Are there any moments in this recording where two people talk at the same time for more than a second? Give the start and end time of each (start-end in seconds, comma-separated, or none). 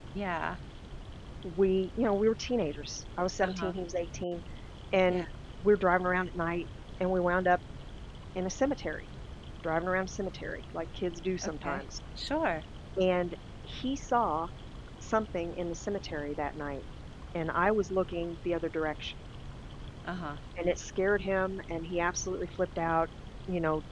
none